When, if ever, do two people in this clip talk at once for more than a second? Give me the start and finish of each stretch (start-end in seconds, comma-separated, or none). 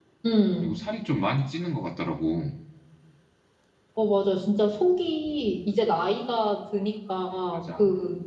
none